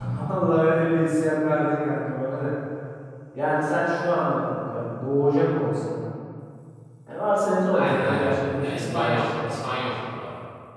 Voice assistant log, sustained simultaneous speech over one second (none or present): present